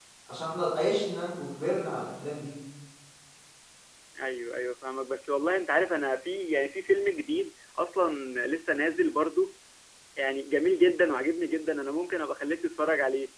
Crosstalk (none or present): none